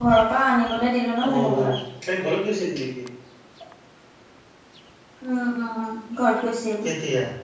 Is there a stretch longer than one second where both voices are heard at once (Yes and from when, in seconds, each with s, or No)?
No